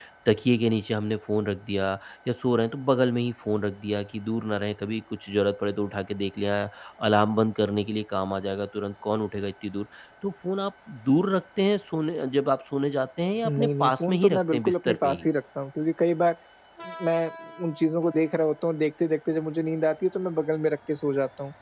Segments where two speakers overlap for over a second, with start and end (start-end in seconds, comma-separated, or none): 13.4-15.2